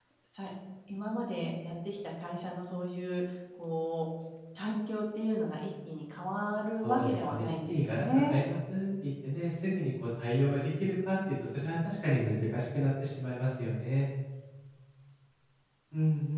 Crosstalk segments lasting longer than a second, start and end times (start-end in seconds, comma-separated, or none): 6.8-8.4